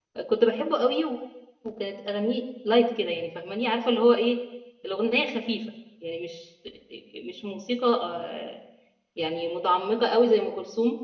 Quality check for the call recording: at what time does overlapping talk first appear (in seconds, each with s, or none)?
none